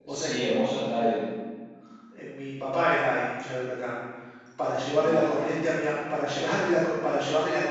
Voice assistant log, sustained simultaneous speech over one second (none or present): none